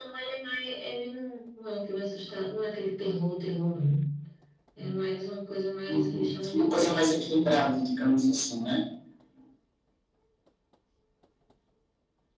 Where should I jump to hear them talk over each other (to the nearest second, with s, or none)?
6 s